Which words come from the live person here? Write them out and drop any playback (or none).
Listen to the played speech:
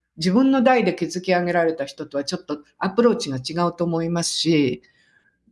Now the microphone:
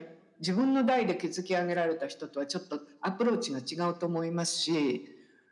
none